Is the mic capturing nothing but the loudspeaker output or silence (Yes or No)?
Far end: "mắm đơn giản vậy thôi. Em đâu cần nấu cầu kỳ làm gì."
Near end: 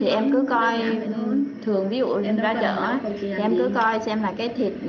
No